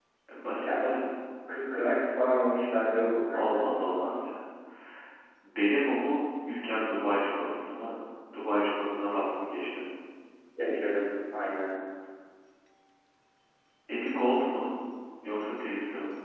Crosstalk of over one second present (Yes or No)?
No